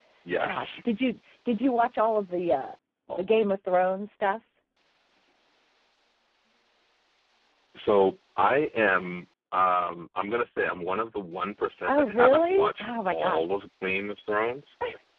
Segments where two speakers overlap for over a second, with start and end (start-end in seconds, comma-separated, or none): 11.9-13.4